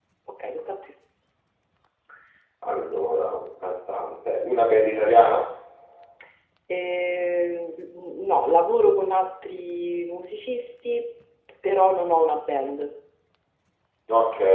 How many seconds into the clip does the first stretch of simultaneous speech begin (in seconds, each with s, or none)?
none